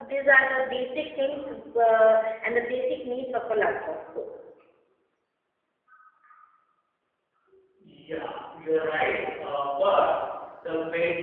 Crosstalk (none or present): none